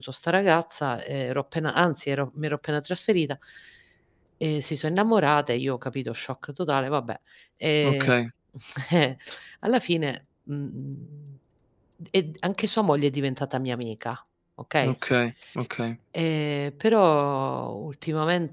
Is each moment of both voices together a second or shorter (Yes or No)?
Yes